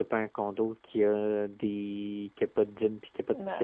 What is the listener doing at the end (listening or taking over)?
taking over